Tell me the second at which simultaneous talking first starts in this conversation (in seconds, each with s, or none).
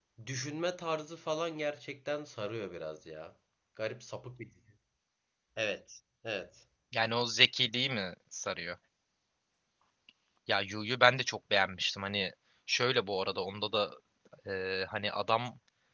none